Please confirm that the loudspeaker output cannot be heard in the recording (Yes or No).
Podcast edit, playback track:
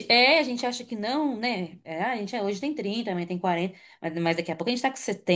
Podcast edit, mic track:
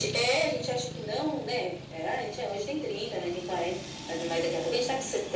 No